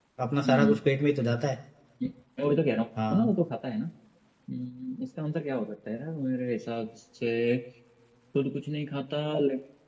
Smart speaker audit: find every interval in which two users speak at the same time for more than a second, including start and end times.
none

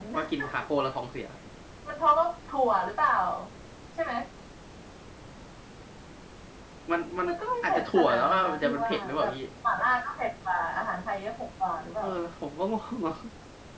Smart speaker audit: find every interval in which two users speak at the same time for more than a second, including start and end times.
7.6-9.3

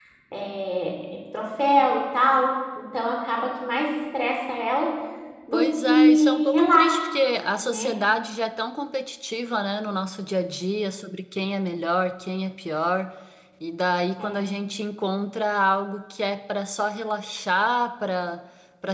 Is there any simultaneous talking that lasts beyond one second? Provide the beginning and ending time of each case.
5.5-7.1

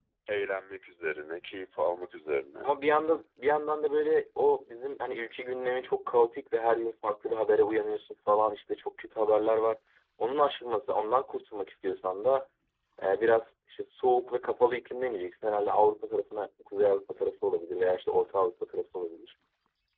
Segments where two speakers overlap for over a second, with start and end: none

